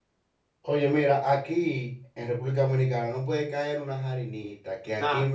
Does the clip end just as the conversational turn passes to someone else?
No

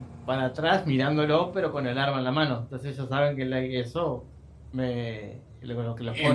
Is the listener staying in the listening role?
No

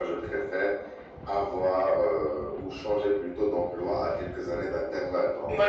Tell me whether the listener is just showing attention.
No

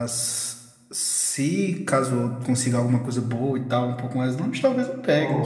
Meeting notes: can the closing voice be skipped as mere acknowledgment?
No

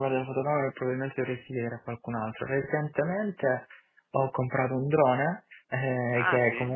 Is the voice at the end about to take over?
No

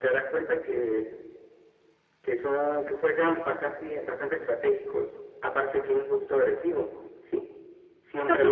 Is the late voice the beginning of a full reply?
Yes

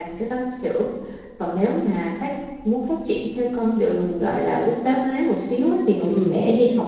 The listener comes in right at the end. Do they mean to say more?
No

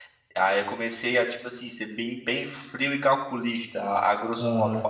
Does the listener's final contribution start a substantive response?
Yes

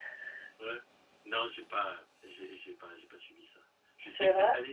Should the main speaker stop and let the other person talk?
No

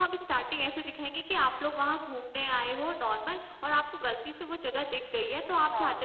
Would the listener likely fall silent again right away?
Yes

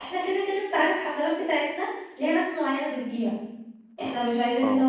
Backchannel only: Yes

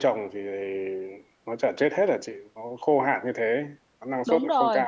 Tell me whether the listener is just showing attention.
No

